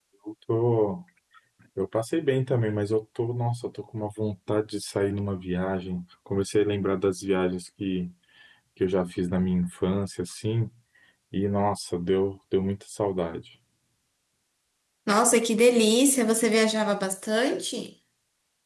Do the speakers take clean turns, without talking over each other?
Yes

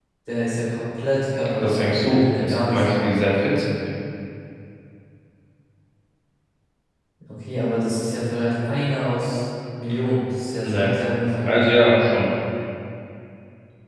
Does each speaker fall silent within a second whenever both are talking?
No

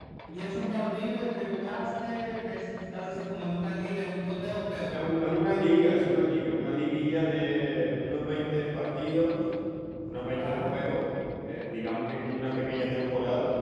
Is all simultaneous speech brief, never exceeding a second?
Yes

